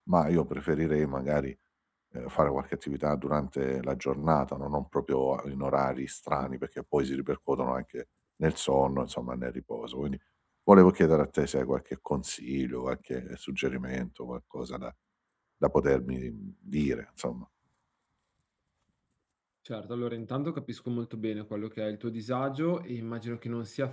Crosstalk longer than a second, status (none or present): none